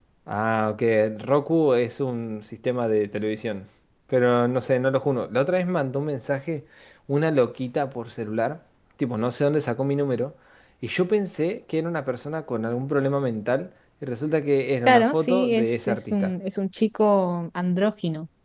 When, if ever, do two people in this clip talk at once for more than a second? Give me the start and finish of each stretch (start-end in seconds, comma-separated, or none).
14.9-16.3